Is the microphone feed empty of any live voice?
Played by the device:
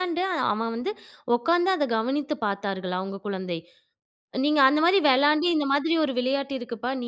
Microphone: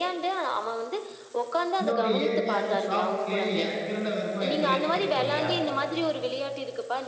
No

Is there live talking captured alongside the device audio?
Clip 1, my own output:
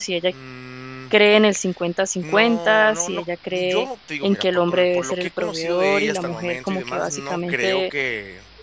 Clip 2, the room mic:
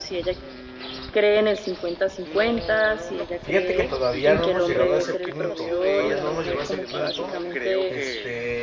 Yes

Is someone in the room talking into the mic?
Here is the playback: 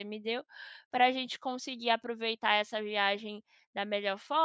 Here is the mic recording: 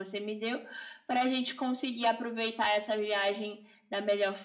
No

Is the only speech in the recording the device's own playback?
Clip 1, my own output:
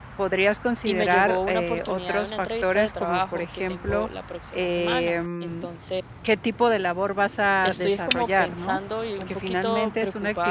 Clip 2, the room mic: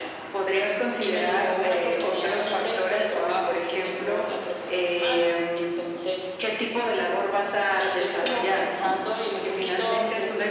Yes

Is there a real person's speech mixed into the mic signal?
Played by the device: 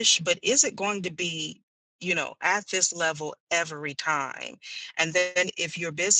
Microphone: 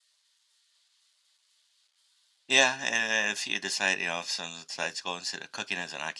Yes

